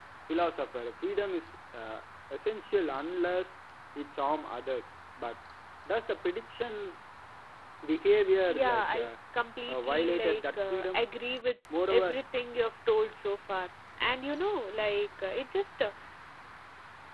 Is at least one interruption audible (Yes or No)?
Yes